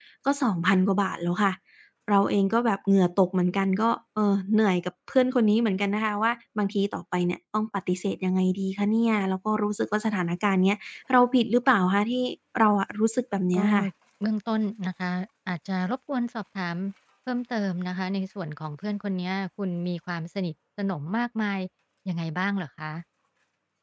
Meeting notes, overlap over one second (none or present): none